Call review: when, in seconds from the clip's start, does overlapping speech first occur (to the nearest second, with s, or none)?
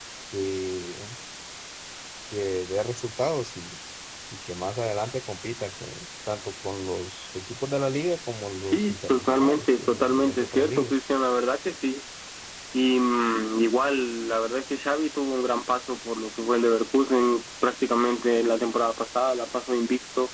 9 s